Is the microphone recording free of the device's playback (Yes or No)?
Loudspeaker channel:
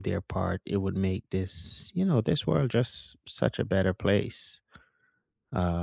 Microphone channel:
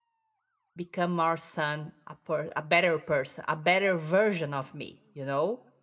Yes